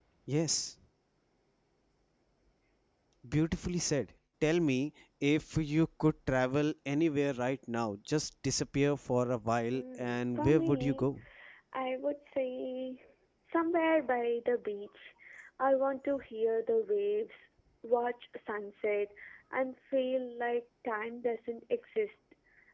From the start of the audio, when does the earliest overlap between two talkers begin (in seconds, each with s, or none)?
9.7 s